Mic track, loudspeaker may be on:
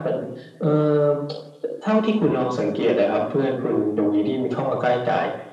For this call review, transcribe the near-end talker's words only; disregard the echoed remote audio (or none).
none